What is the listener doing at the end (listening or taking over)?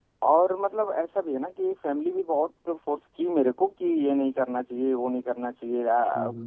listening